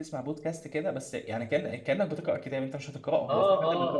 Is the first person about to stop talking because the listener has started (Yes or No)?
Yes